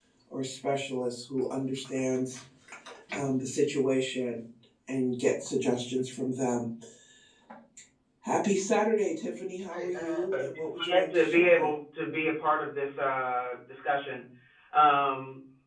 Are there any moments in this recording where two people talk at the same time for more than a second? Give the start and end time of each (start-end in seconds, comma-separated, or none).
9.7-11.7